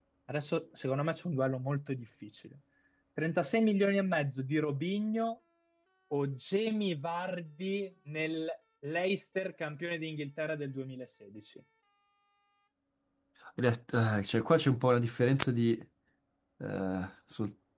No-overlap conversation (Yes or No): Yes